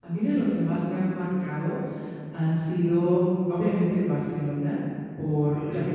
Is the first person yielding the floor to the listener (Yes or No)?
No